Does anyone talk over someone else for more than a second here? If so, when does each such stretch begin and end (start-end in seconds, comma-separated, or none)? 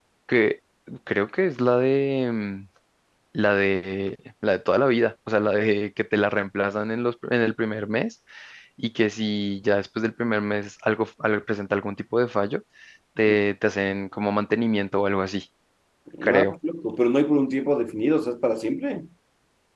none